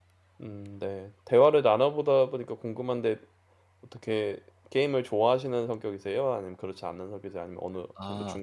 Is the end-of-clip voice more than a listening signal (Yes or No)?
Yes